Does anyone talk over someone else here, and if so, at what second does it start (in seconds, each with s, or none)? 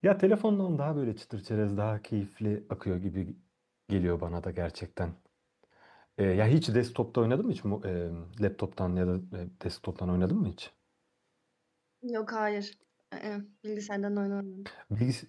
none